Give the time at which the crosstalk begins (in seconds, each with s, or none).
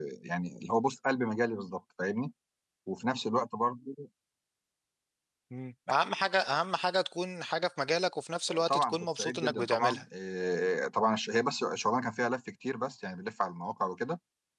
8.5 s